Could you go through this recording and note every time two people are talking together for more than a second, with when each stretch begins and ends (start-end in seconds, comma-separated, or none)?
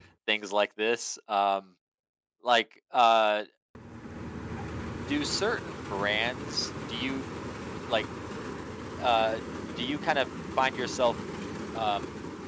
none